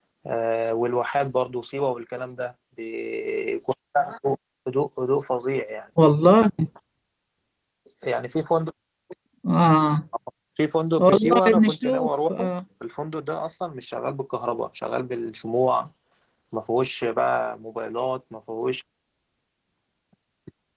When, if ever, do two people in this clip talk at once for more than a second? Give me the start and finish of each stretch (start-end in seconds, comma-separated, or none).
11.0-12.5